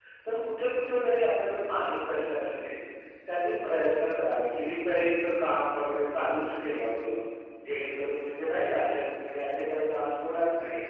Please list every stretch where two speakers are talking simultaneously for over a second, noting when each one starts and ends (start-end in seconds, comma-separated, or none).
none